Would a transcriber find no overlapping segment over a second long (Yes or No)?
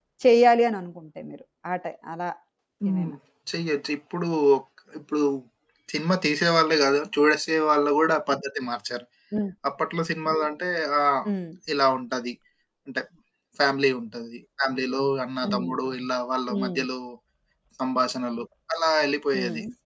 Yes